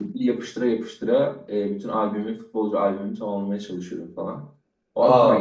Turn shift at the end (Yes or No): Yes